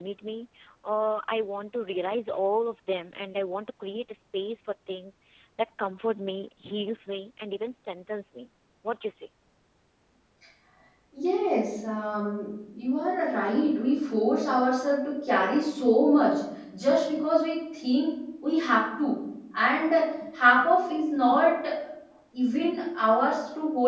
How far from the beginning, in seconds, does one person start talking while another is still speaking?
none

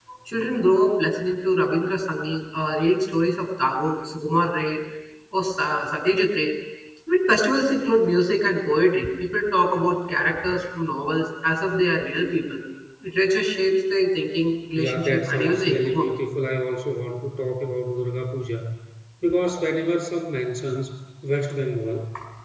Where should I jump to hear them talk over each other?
15 s

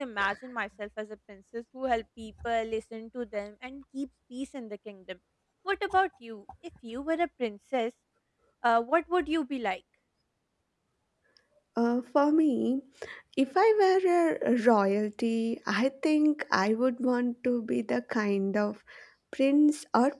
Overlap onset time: none

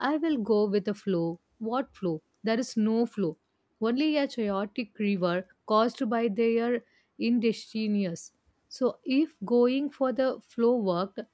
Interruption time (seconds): none

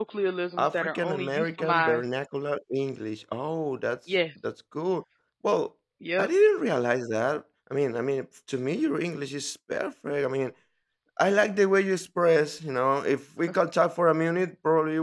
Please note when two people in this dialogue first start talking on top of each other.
1 s

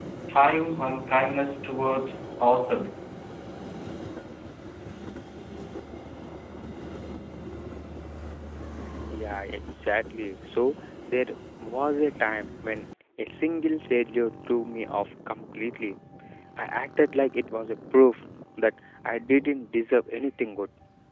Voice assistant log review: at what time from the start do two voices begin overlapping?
none

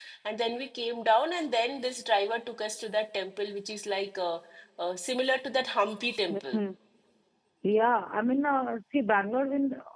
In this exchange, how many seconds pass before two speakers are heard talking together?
none

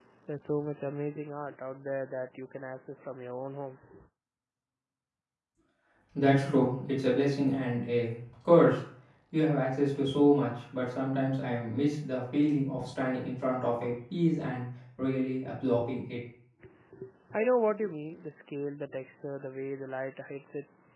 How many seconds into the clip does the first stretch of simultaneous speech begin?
none

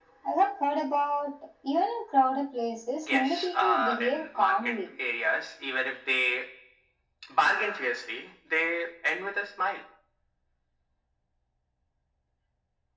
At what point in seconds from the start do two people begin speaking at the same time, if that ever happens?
3 s

